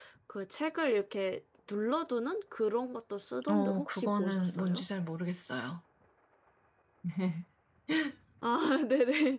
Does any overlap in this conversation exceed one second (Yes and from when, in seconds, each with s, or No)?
Yes, from 3.4 s